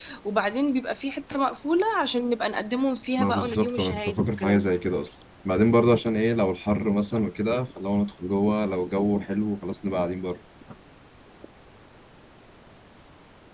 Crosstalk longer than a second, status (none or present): present